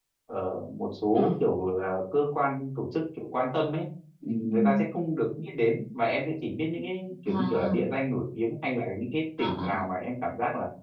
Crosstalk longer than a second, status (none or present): none